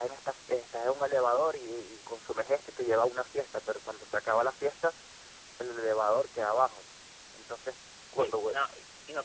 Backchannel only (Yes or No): No